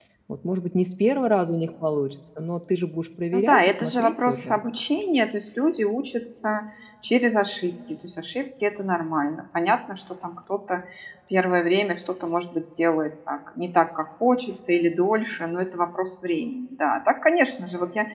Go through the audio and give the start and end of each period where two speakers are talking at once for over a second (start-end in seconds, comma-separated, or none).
3.3-4.6